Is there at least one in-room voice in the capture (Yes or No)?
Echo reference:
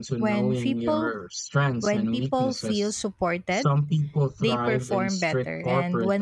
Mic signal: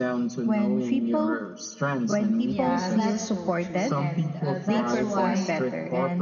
Yes